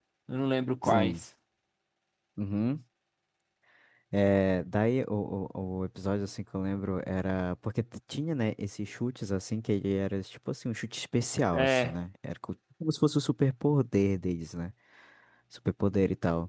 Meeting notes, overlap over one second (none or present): none